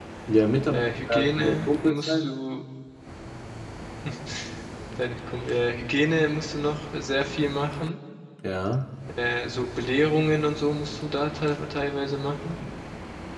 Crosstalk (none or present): present